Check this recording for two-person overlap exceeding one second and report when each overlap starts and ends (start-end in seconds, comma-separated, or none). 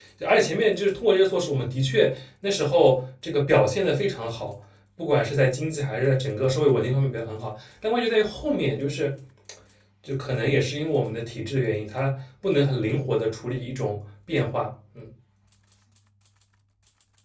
none